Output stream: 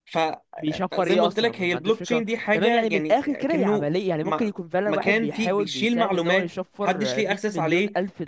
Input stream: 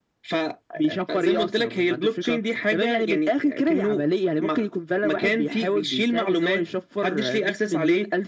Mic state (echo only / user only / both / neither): echo only